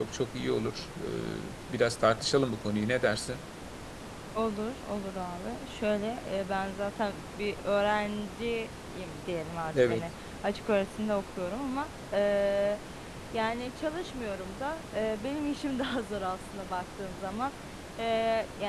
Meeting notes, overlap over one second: none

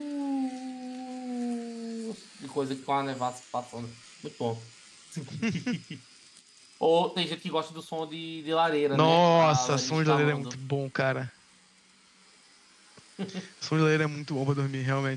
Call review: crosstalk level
present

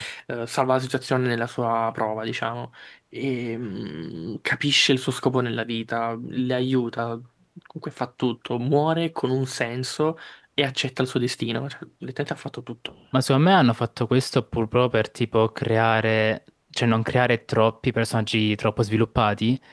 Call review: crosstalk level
none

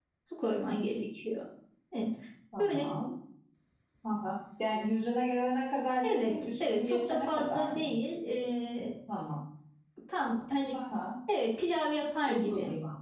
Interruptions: present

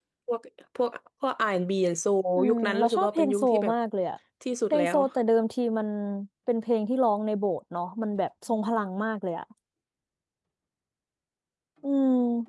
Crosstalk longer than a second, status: present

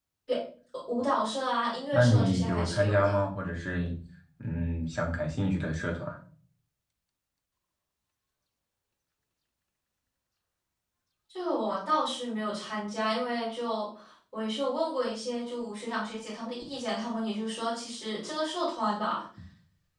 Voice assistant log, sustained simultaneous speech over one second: present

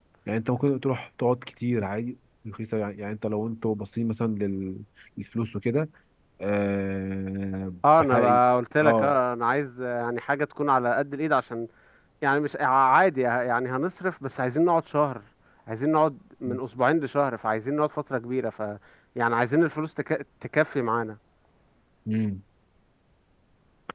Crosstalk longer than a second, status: none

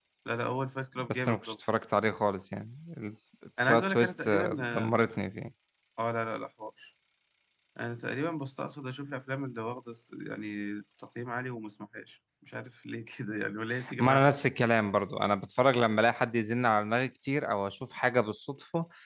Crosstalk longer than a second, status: present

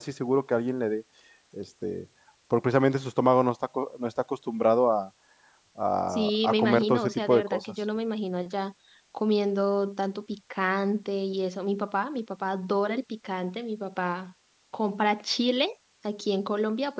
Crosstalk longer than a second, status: present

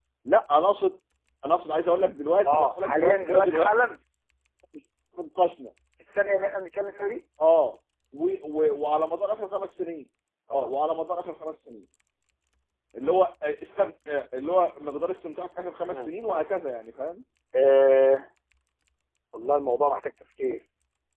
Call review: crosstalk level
present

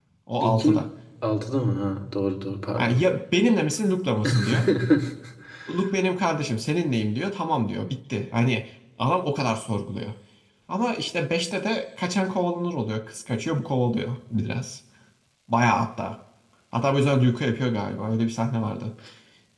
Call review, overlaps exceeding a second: none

